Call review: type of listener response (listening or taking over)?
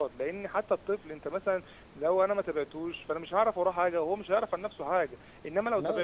listening